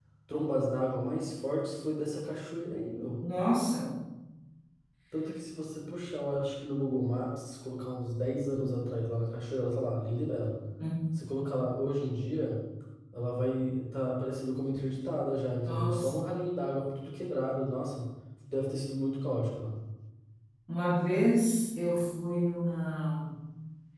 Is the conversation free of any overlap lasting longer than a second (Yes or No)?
Yes